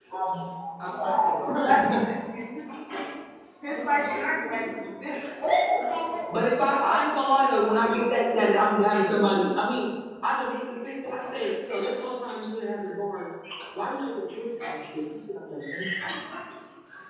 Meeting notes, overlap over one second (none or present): present